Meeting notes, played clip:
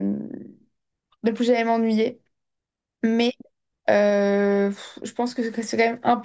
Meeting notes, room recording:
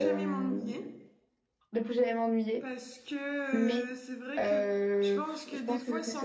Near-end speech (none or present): present